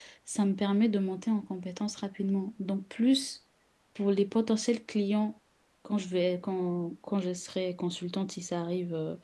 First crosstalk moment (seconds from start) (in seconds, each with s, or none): none